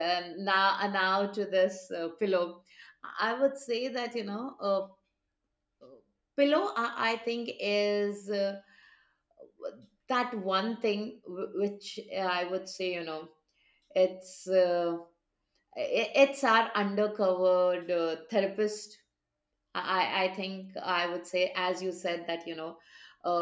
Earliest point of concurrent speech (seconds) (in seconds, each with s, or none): none